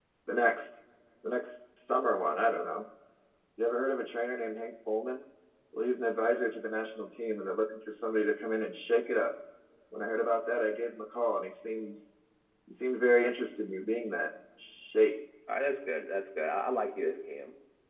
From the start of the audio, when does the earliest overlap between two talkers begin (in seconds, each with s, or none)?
none